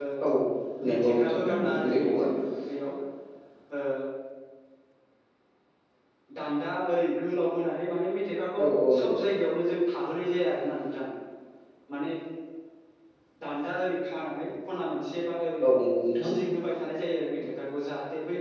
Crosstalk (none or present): present